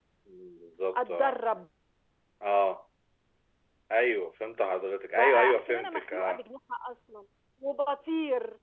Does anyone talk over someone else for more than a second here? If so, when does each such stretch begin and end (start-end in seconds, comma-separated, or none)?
5.1-6.4